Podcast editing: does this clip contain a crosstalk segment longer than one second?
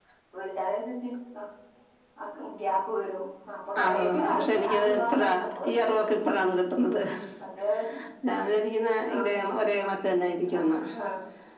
Yes, from 3.8 s

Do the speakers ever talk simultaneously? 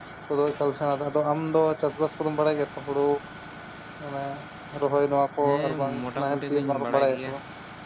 Yes, from 5.4 s

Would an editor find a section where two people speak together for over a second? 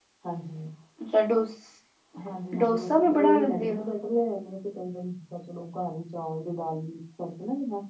Yes, from 2.6 s

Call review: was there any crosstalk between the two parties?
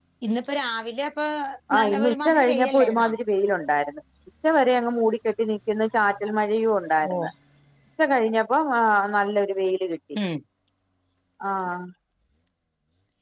Yes, from 1.8 s

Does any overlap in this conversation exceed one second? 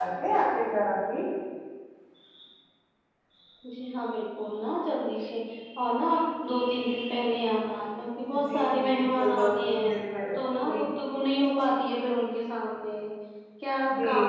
Yes, from 8.5 s

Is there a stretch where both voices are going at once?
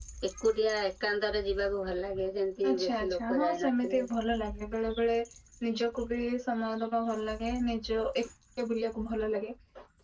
Yes, from 2.6 s

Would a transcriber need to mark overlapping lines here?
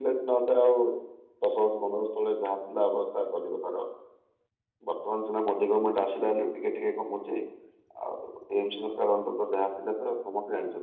No

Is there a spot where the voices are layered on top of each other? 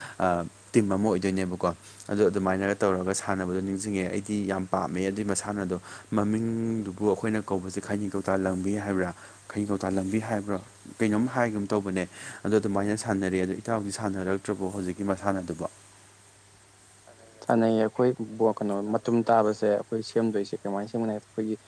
No

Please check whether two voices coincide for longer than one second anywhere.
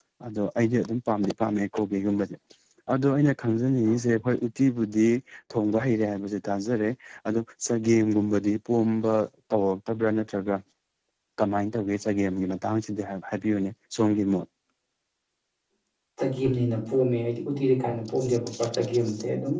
No

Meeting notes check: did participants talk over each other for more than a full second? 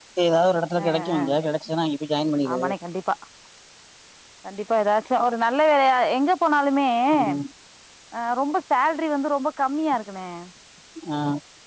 No

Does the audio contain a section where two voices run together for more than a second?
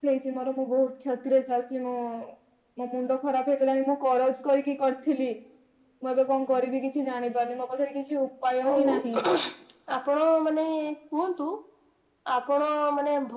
No

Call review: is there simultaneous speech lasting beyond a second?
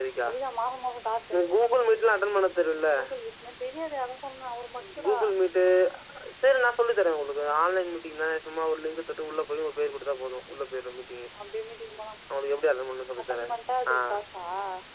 No

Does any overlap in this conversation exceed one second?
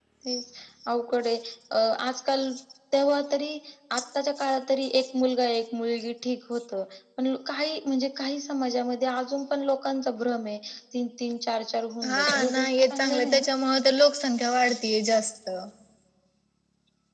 Yes, from 12.0 s

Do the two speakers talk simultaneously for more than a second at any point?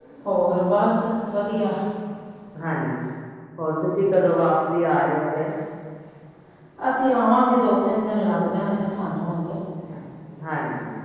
No

